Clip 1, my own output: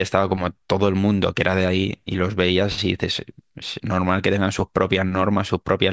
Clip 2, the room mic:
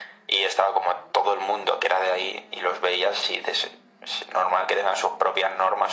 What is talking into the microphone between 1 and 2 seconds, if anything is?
echo only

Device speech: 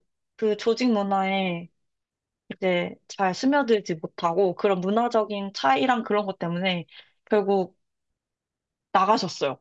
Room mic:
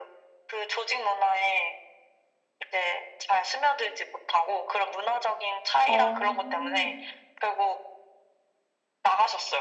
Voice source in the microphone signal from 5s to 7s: both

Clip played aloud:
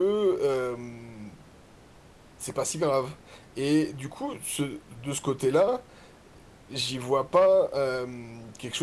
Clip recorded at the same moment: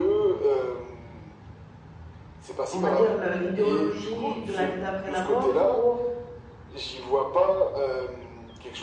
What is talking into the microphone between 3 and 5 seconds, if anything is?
both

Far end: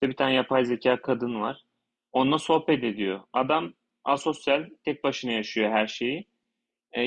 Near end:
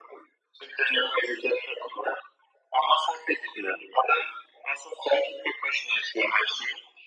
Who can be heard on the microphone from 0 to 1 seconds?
echo only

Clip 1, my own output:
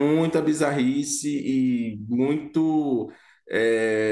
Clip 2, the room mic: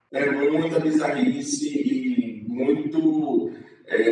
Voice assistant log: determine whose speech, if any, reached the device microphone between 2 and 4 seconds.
echo only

